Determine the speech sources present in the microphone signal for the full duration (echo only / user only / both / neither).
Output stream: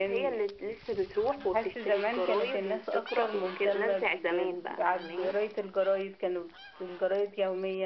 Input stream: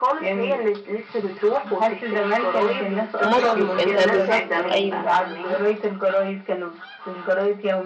both